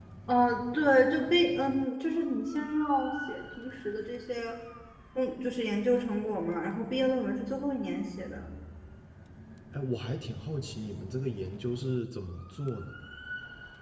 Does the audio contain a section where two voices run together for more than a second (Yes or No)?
No